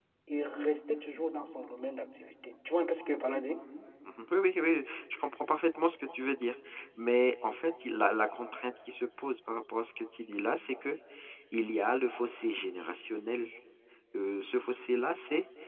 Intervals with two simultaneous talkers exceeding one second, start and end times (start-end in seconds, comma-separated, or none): none